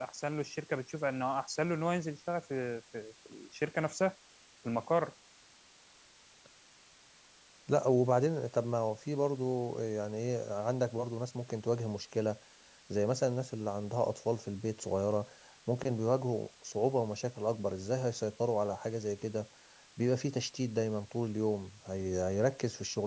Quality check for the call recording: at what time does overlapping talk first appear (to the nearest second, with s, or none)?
none